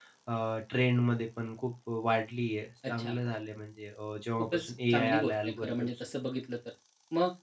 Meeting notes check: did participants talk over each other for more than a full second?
Yes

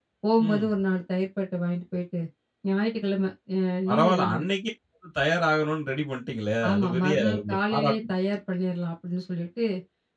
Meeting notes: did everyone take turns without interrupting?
No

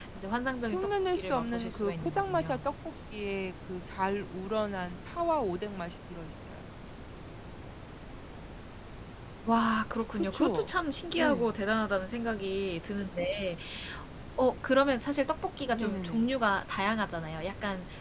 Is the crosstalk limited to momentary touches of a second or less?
No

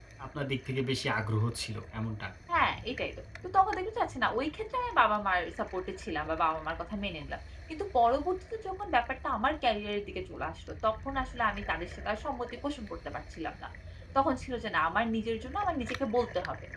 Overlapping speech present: No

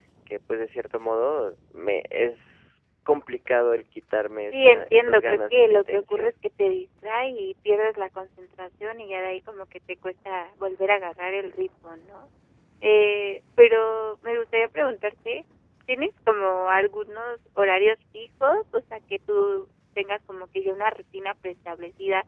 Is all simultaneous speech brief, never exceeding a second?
No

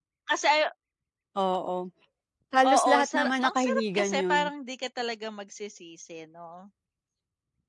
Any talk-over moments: Yes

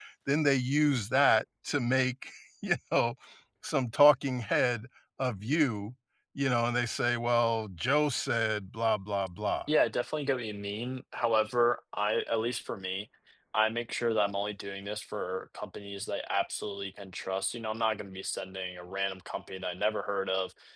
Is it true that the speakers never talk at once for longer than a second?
Yes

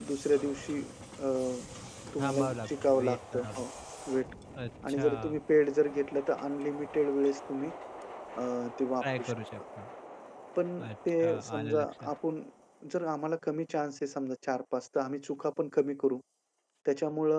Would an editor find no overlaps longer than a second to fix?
No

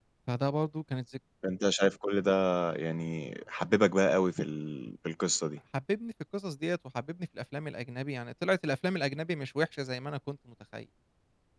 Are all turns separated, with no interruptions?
Yes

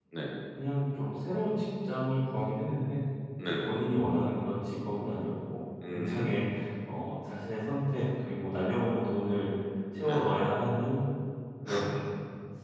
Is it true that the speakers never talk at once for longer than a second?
Yes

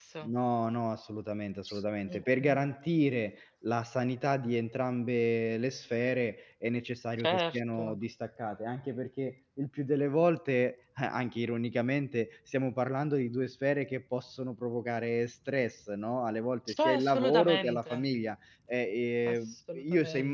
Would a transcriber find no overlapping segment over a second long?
No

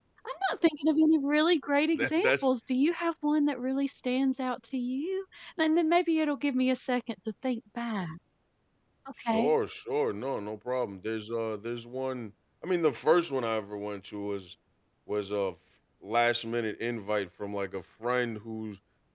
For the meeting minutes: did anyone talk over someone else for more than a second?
No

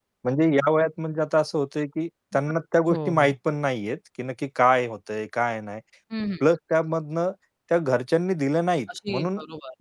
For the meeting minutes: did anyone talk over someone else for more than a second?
No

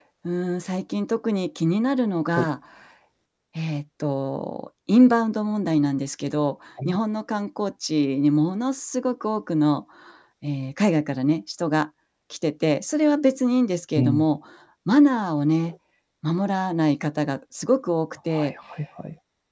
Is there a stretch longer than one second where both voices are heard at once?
No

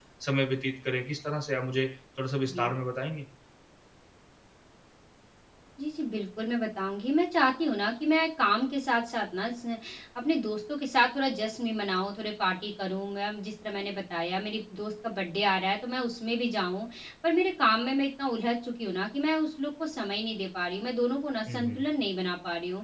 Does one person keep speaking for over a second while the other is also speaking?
No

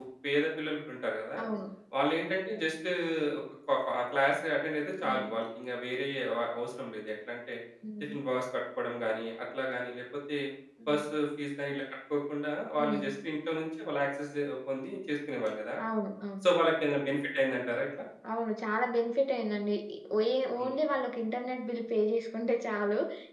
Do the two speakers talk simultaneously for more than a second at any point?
No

